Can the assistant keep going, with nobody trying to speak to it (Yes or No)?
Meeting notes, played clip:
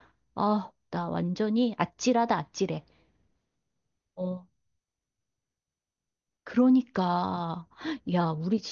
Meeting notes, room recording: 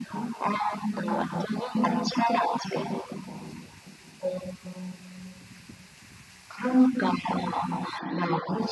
Yes